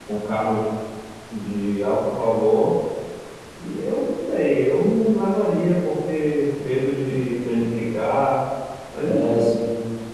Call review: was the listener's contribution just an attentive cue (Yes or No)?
No